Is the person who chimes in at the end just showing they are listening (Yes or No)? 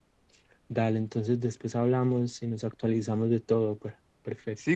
No